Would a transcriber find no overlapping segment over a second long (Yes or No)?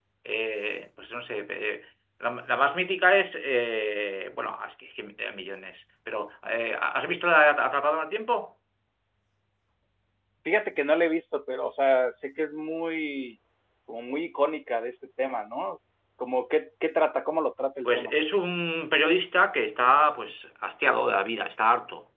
Yes